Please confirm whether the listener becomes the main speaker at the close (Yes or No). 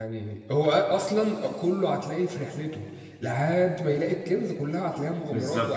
Yes